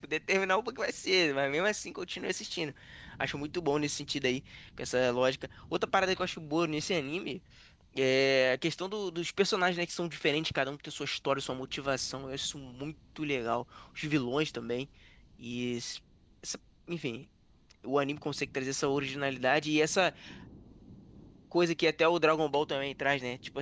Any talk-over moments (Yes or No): No